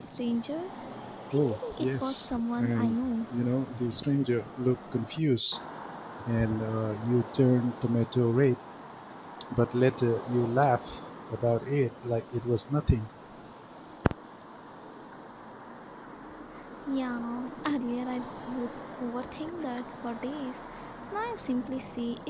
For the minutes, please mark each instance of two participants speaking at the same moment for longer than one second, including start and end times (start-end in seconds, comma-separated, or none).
1.3-3.0